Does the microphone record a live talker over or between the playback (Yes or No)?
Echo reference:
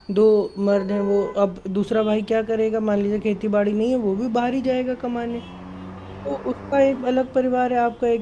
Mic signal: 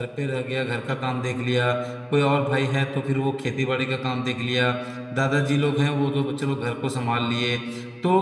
Yes